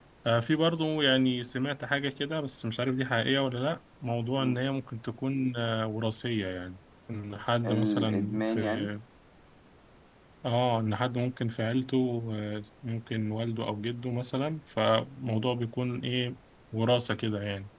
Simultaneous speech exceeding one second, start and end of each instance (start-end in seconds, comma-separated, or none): 7.7-8.9